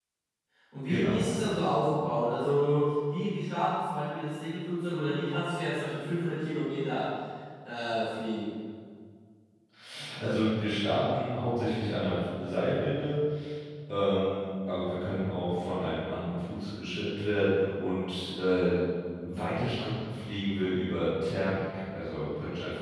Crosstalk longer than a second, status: none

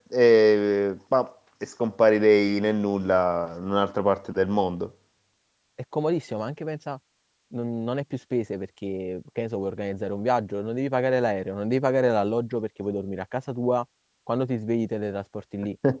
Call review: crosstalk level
none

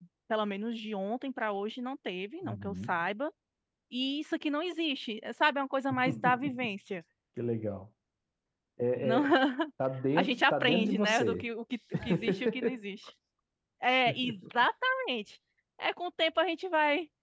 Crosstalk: present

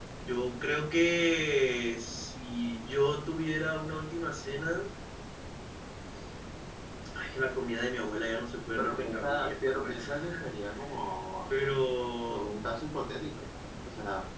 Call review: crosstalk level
present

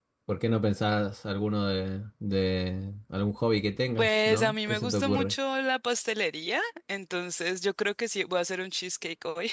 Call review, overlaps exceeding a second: present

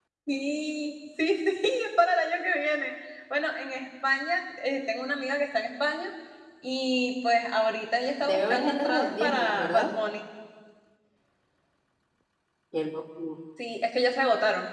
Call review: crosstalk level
present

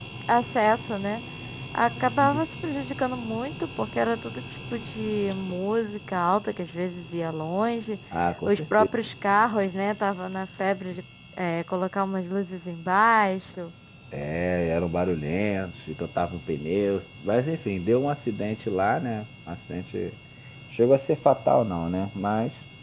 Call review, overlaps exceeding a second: none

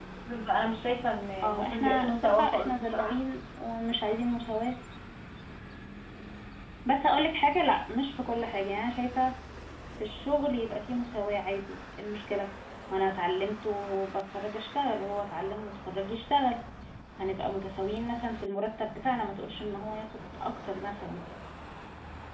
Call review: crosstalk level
present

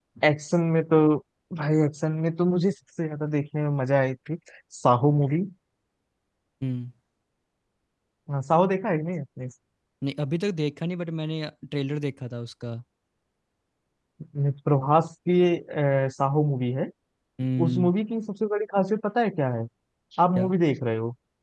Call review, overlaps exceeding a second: none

